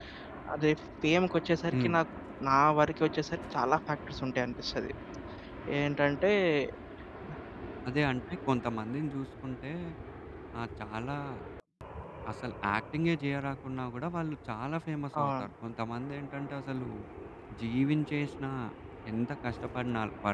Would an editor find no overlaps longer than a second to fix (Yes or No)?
Yes